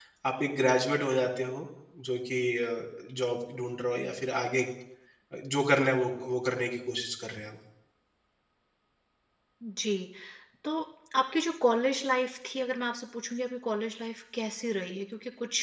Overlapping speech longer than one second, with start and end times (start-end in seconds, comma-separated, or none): none